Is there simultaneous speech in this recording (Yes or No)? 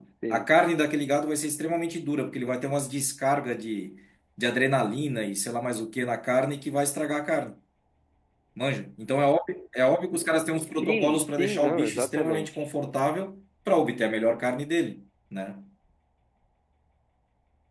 Yes